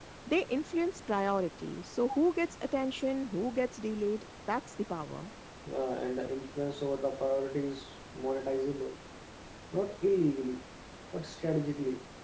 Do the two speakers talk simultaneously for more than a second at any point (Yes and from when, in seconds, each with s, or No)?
No